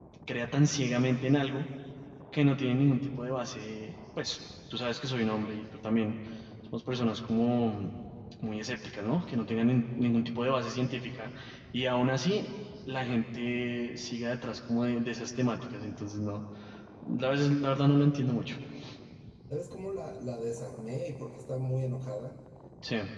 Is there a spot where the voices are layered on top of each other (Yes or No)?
No